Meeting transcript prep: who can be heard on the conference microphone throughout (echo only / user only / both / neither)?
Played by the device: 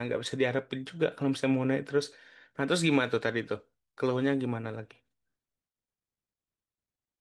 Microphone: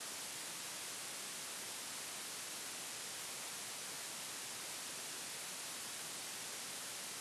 neither